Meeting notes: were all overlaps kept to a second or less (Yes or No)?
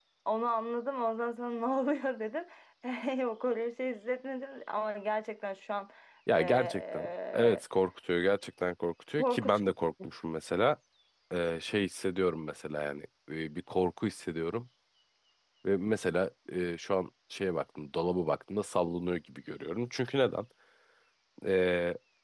No